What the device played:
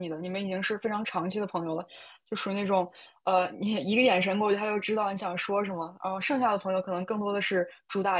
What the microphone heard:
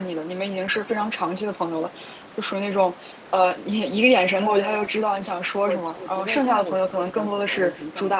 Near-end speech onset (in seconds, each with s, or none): 4.4 s